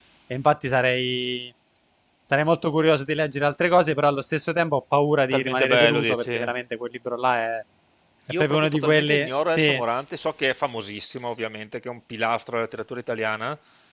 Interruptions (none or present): present